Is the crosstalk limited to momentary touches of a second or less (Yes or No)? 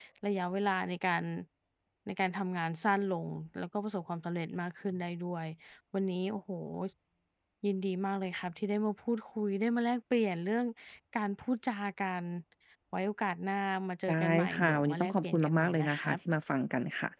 No